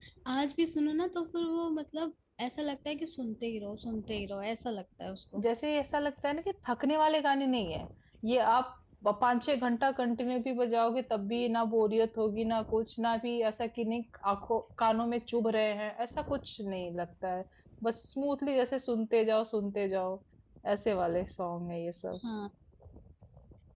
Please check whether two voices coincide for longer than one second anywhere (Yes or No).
No